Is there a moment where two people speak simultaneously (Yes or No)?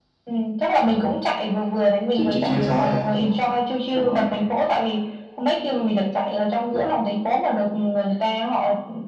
Yes